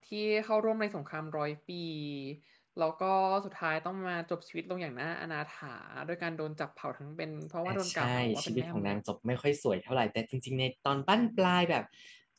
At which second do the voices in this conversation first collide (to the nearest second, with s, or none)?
8 s